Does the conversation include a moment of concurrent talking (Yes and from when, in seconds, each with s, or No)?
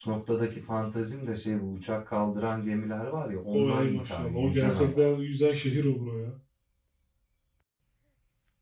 Yes, from 3.5 s